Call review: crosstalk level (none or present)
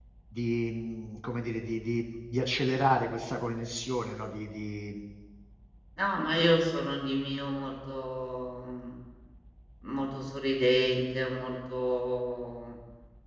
none